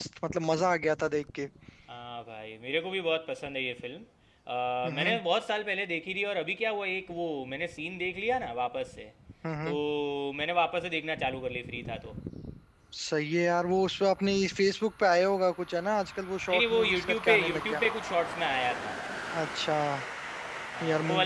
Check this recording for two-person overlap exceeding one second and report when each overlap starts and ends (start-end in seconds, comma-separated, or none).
16.5-17.8